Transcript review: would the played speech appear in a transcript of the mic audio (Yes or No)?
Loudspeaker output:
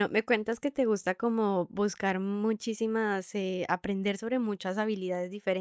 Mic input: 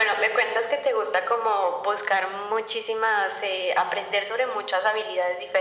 Yes